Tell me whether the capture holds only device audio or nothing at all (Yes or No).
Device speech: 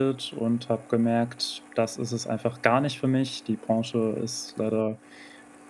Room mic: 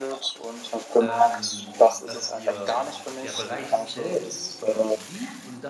No